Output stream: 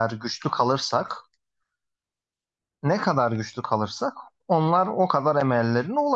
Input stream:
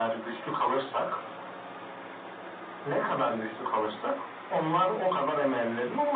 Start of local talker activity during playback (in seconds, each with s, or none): none